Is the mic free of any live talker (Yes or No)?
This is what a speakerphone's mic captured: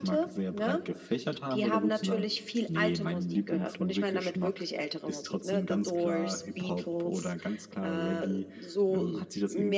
Yes